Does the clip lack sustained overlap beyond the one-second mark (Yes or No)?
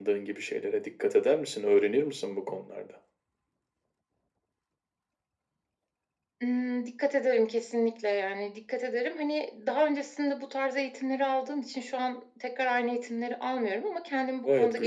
Yes